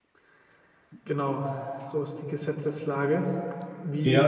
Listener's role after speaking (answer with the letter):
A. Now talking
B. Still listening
A